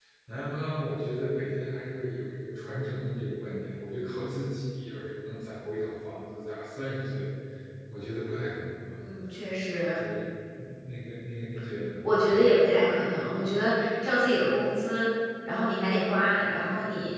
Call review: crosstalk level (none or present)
none